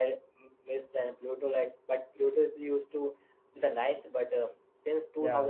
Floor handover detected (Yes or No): No